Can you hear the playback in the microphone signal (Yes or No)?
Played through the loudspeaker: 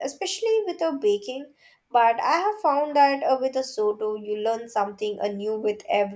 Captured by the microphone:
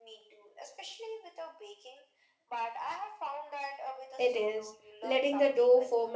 Yes